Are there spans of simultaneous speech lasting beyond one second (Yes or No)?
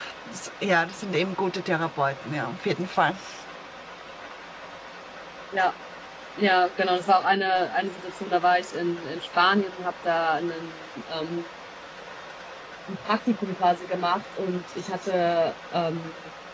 No